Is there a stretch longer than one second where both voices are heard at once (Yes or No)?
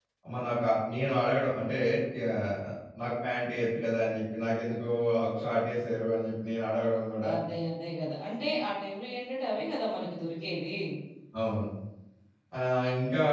No